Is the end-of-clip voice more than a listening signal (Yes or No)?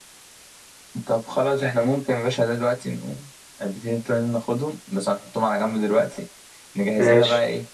No